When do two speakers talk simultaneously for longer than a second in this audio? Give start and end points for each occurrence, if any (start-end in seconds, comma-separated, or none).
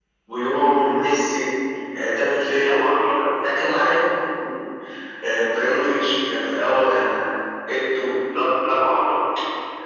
none